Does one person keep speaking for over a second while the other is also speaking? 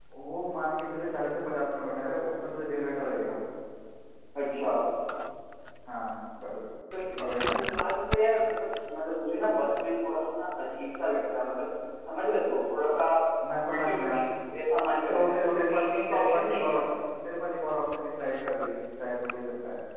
Yes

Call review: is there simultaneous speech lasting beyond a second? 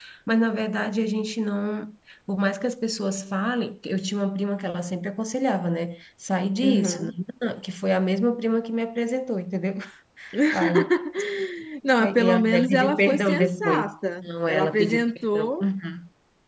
Yes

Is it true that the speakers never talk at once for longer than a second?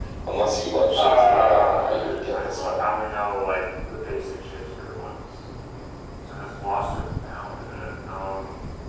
No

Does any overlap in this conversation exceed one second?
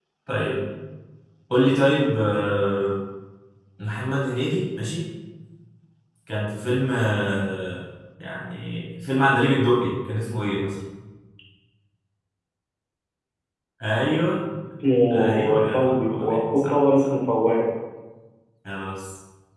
Yes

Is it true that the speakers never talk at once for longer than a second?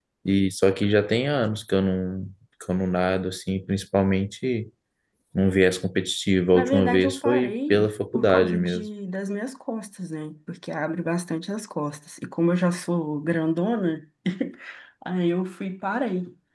No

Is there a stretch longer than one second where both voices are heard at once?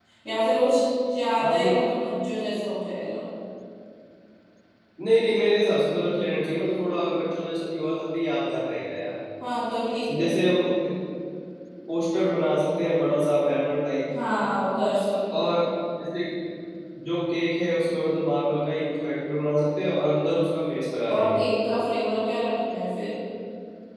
No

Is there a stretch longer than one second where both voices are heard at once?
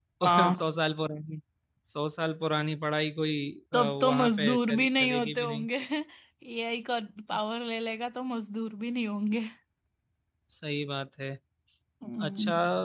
Yes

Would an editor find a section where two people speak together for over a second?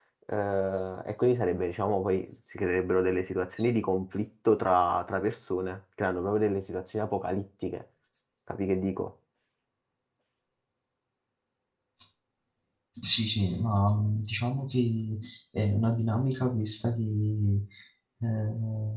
No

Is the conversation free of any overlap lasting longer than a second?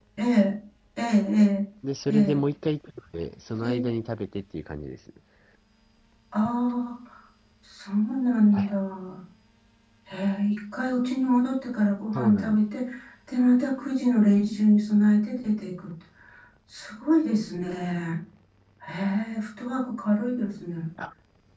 Yes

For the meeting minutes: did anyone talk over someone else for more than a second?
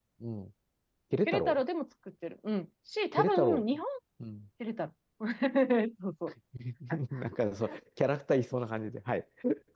No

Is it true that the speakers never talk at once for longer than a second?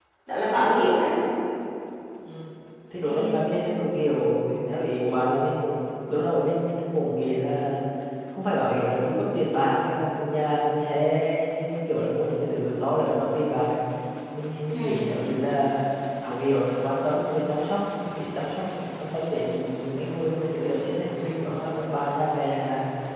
Yes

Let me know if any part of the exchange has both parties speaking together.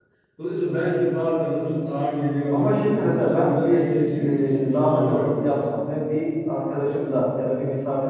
Yes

